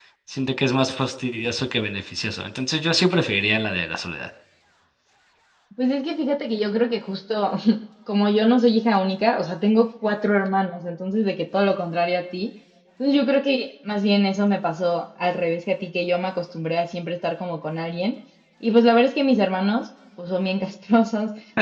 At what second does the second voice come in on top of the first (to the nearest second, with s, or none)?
none